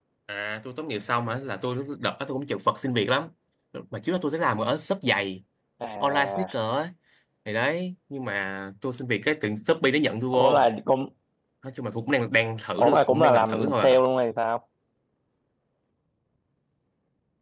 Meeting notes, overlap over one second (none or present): present